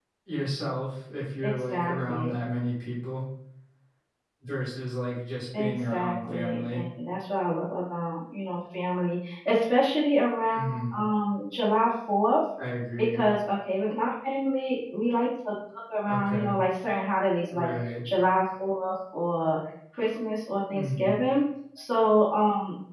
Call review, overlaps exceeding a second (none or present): present